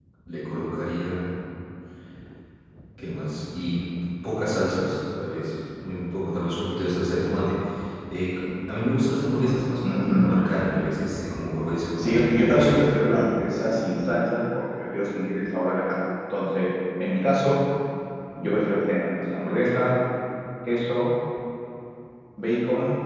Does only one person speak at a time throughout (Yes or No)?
No